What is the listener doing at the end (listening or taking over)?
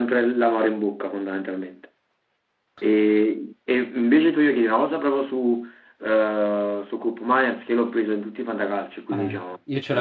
taking over